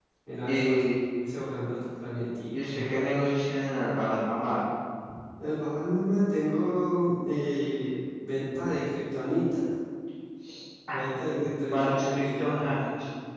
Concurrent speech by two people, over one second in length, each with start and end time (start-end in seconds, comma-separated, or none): 11.3-12.7